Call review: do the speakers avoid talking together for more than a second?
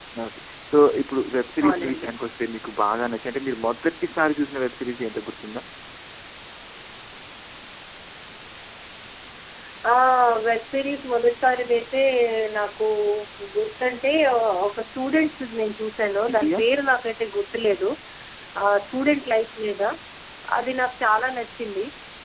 Yes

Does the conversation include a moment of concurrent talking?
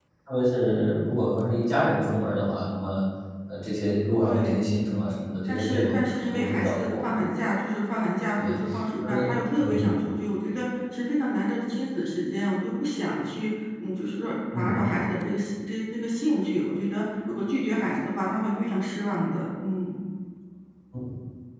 Yes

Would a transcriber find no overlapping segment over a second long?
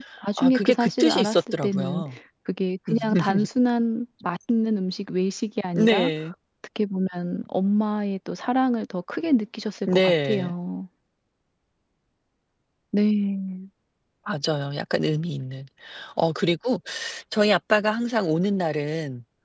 No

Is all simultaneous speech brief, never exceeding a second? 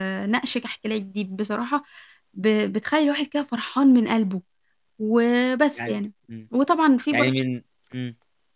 Yes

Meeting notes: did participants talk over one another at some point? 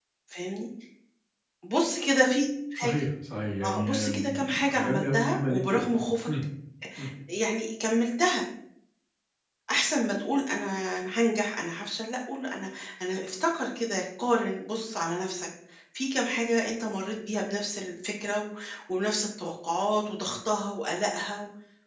Yes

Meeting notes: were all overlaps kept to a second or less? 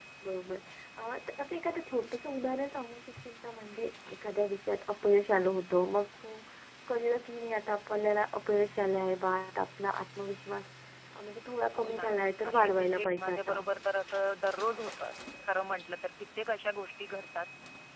No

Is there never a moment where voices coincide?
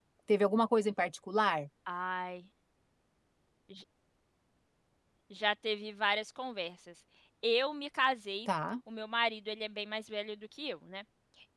Yes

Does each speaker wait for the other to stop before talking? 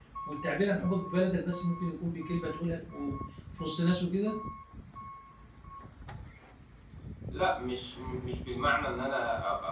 Yes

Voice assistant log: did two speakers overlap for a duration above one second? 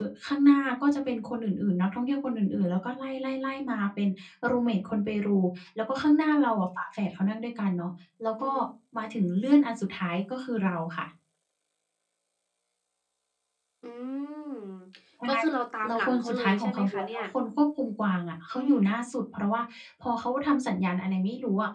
Yes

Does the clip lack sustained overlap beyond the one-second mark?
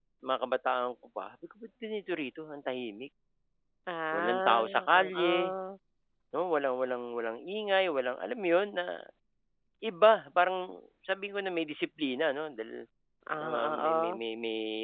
No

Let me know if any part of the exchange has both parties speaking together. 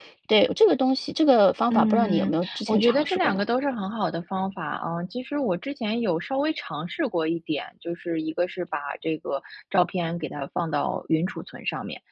Yes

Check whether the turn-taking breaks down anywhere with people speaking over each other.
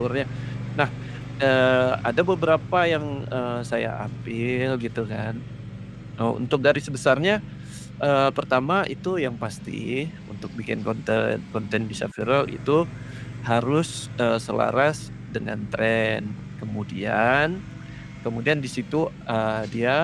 No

